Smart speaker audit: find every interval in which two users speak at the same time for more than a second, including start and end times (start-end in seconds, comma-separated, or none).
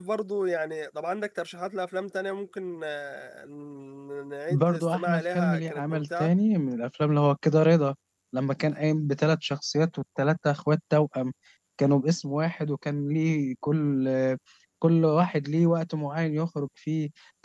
4.5-6.3